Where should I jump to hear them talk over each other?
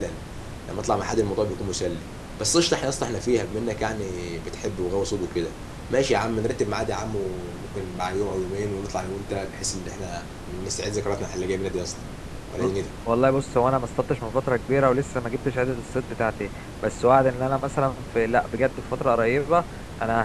none

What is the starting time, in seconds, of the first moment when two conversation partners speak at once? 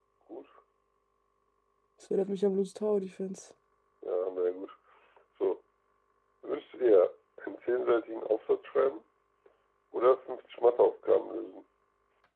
none

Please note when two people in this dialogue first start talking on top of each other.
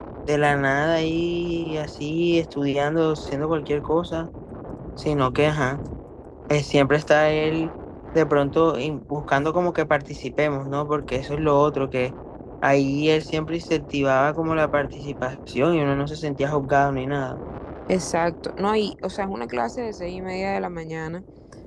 none

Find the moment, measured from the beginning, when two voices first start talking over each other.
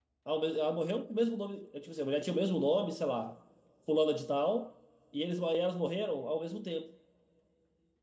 none

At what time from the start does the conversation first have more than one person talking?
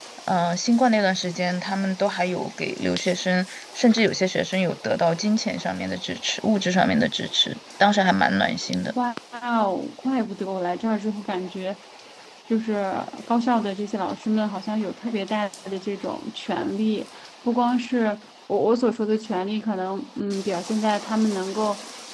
none

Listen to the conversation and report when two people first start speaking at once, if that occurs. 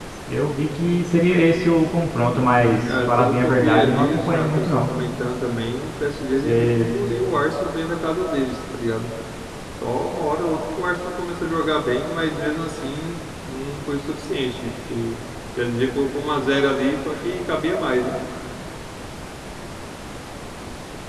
3.1 s

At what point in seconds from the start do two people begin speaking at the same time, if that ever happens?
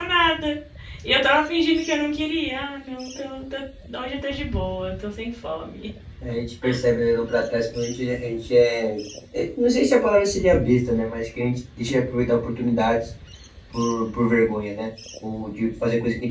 none

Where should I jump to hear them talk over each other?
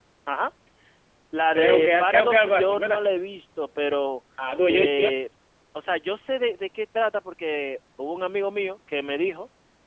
1.6 s

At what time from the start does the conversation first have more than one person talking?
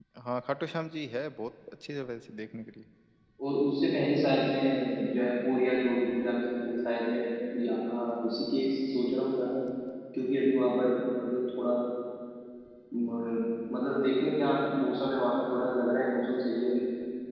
none

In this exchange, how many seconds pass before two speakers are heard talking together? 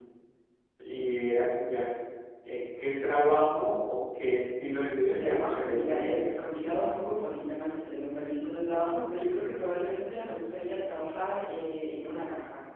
5.0 s

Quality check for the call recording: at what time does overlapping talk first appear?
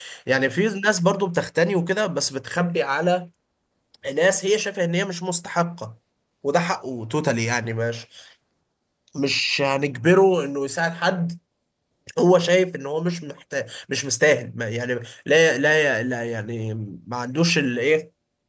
none

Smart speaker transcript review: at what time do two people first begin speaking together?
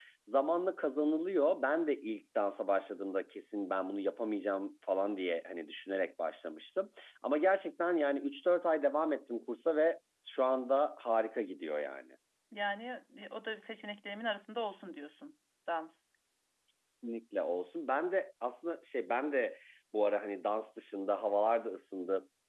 none

